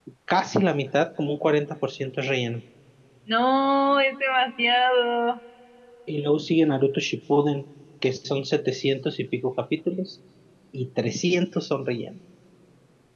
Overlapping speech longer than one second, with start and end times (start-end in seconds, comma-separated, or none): none